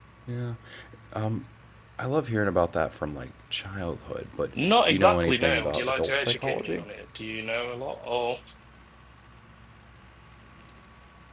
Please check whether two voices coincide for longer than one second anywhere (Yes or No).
Yes